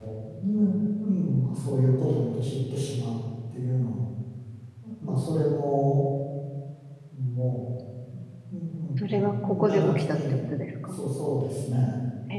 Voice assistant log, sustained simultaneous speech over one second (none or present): present